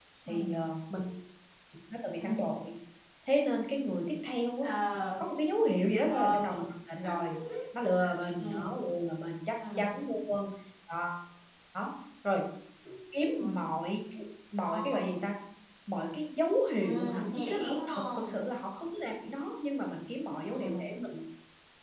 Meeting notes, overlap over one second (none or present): present